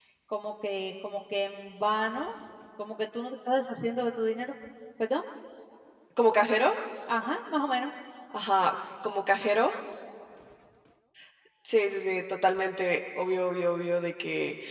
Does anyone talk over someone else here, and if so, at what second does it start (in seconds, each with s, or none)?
none